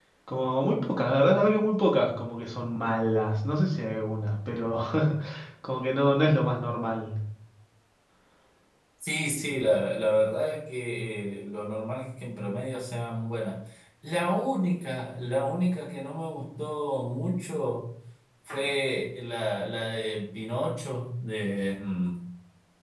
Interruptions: none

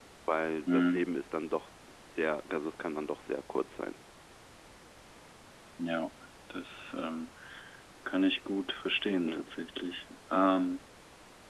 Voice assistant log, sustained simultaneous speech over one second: none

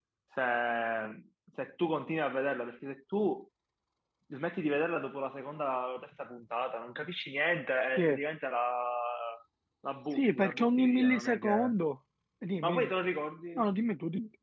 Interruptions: present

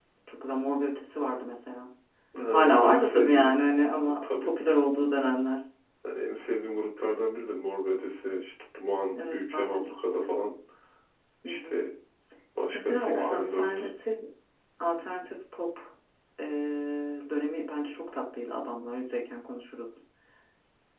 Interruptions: present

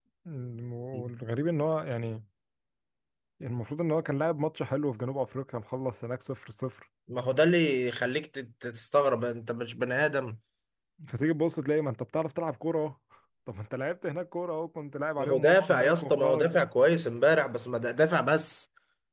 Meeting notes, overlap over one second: present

